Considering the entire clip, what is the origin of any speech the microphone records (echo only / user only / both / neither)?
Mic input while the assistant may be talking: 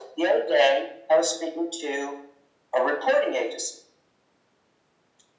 echo only